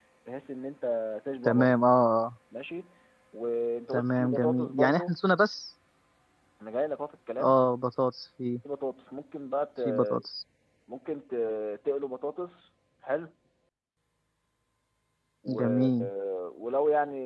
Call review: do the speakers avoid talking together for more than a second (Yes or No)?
No